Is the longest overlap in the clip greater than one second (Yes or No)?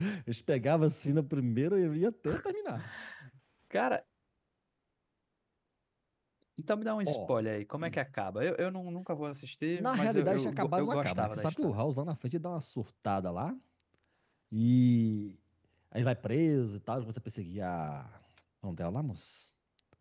Yes